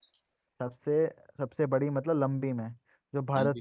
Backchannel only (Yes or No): Yes